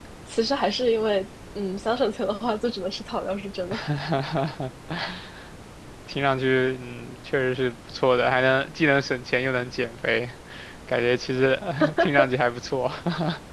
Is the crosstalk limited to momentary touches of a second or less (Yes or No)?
Yes